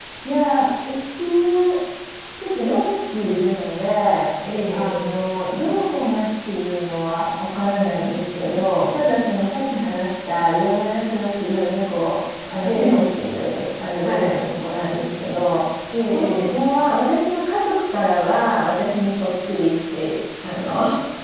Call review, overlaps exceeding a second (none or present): none